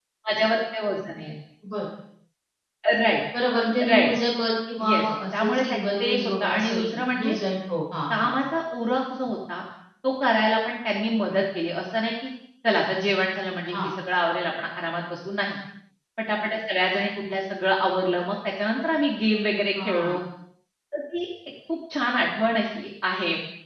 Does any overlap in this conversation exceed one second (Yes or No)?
Yes